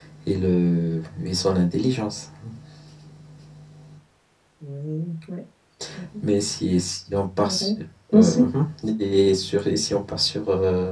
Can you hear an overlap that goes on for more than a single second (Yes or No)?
No